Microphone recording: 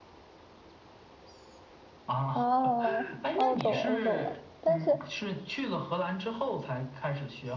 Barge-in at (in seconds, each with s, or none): 2.3 s